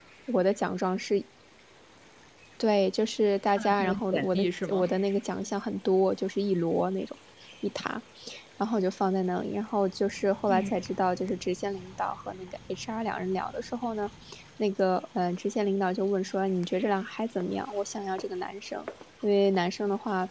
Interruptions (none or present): present